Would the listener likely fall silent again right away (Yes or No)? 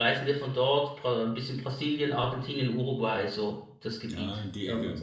No